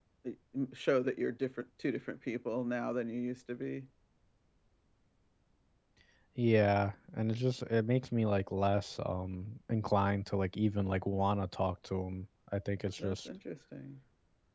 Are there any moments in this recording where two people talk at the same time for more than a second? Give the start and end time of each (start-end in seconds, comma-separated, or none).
none